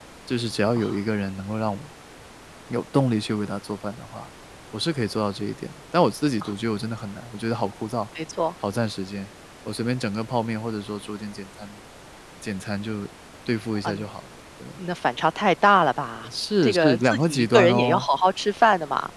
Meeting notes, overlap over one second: present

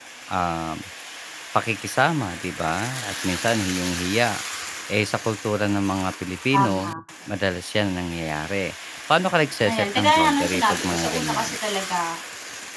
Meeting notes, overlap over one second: present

